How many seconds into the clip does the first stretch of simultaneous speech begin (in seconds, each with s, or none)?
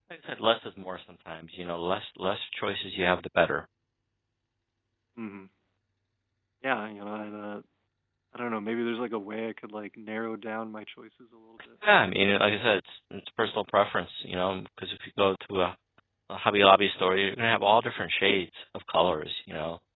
none